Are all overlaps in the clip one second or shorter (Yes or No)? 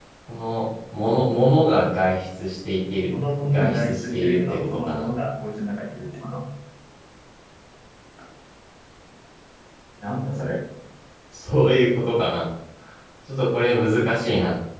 No